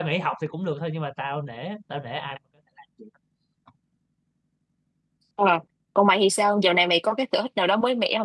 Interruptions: none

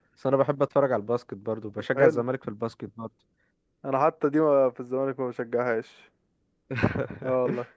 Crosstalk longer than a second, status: none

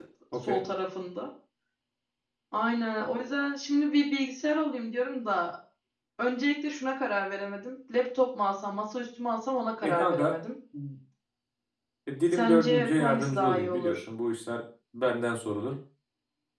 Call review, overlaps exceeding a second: present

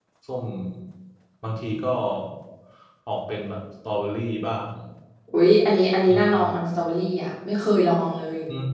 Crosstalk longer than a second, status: none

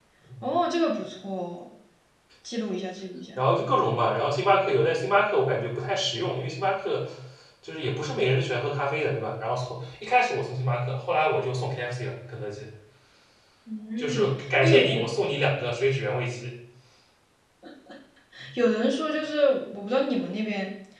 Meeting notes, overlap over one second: none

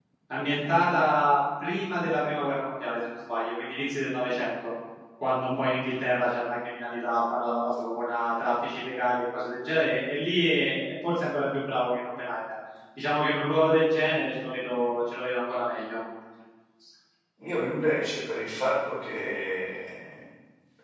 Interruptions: none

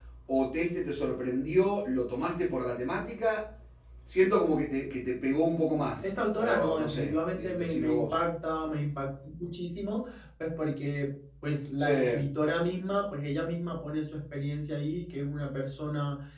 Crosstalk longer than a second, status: present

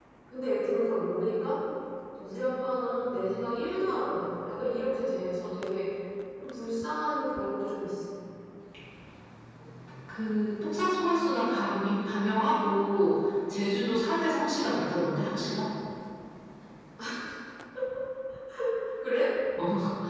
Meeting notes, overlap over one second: none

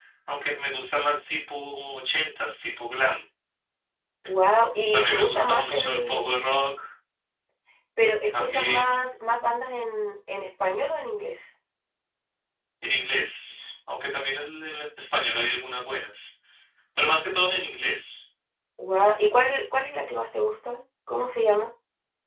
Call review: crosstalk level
present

